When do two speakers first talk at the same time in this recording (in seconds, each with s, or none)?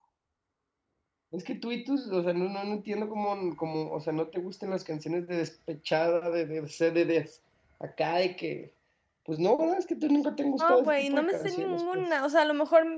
10.6 s